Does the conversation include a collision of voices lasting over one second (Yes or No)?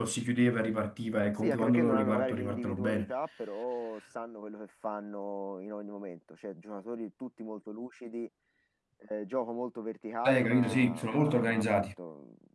Yes